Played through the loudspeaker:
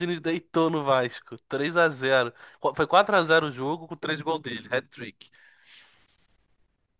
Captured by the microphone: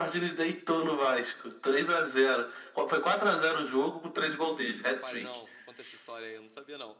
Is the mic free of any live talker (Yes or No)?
No